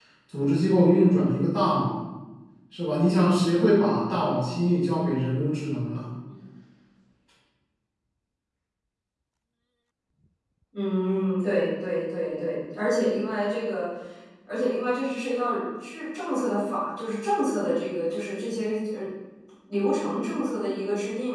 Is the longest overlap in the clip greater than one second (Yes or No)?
No